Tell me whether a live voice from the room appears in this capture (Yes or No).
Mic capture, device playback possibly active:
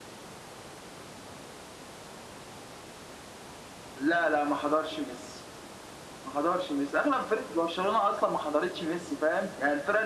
No